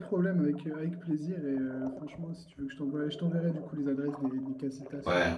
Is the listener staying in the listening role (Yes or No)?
Yes